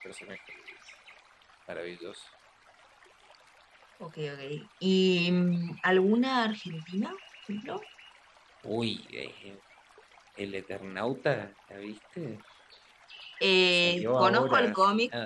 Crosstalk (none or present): present